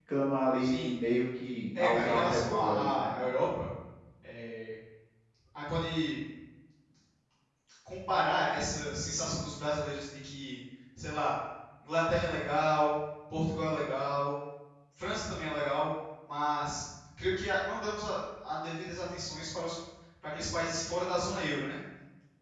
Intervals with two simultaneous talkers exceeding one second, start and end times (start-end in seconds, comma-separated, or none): 1.7-3.2